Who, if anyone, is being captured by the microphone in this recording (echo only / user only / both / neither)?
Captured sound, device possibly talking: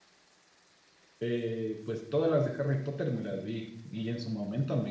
user only